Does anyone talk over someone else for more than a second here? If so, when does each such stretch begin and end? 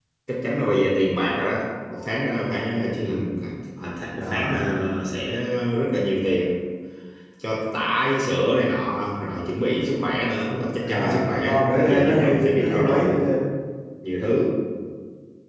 10.8-13.2

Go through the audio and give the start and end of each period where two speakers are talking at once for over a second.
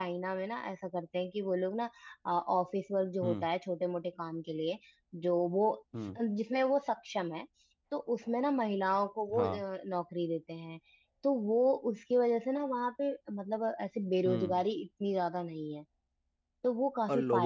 none

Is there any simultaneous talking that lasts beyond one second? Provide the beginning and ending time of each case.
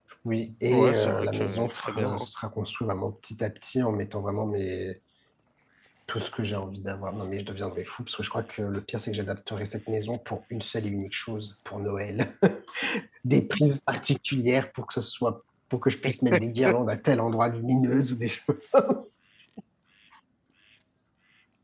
0.7-2.2

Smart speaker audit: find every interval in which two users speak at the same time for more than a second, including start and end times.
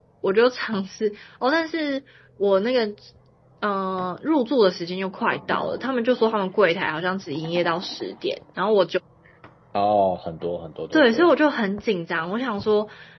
none

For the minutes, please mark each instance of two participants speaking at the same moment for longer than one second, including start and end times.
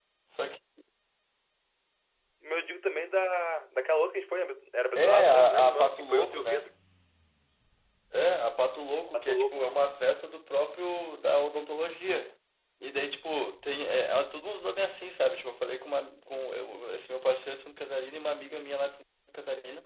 5.0-6.7

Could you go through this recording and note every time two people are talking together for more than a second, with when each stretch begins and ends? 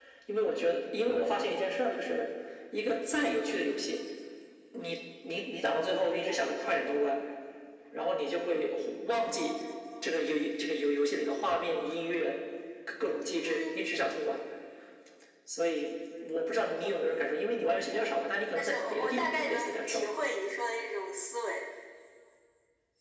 18.6-20.0

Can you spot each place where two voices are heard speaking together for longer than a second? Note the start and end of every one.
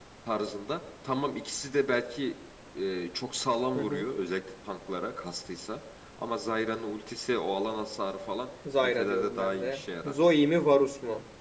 8.8-10.1

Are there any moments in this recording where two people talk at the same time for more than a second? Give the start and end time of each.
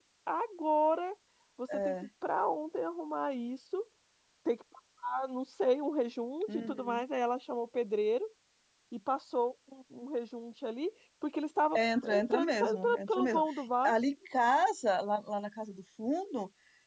11.8-13.4

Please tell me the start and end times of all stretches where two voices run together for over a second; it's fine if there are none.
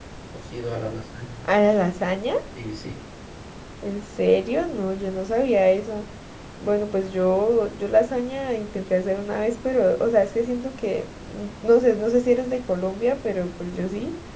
none

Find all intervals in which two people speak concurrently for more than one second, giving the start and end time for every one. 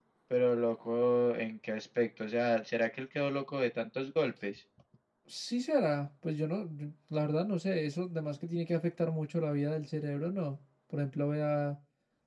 none

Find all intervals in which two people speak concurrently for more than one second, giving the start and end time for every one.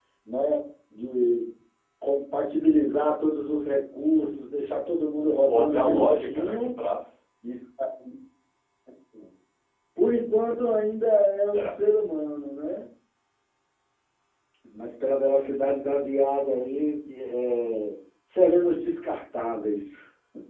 5.5-6.7

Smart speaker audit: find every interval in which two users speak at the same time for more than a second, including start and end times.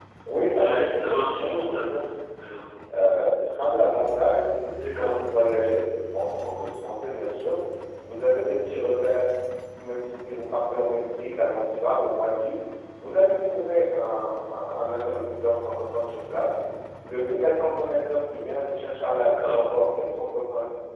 0.6-1.8

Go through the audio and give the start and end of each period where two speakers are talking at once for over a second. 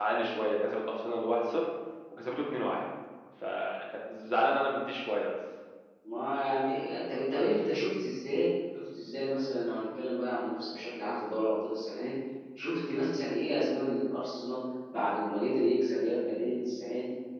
none

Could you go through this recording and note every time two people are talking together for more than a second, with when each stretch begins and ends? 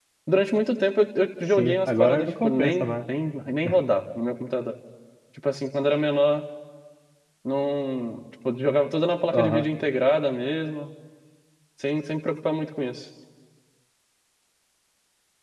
1.6-3.0

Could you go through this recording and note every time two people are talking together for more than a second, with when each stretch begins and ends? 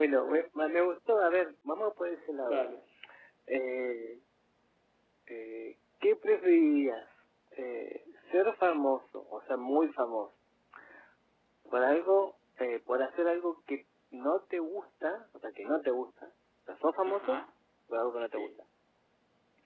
none

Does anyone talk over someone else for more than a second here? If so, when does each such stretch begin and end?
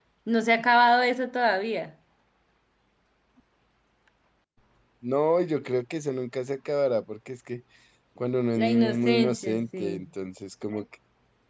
8.6-10.0

